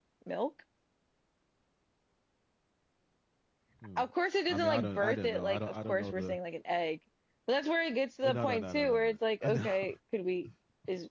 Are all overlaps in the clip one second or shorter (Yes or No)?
No